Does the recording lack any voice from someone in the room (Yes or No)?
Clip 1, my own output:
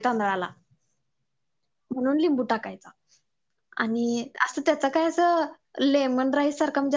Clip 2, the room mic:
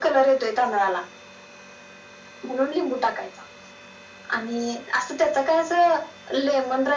Yes